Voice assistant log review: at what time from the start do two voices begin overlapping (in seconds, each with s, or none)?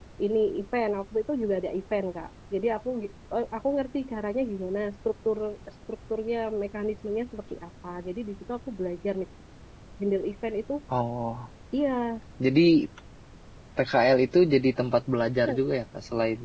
none